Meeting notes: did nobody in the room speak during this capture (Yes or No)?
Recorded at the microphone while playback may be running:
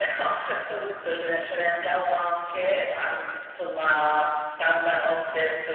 Yes